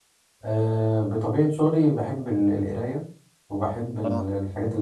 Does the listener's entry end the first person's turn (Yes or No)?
No